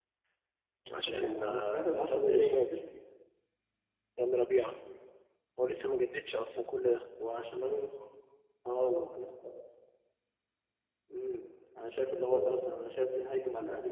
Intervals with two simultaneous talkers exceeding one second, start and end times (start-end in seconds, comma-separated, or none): 1.1-2.6